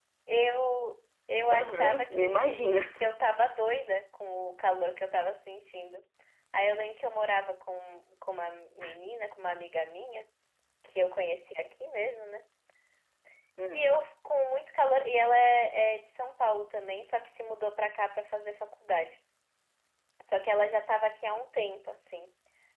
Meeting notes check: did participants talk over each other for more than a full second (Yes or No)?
Yes